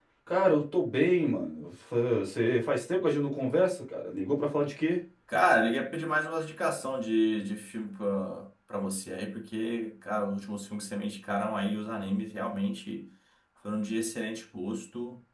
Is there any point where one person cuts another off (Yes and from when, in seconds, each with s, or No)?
No